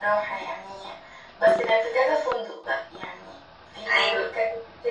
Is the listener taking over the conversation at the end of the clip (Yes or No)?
No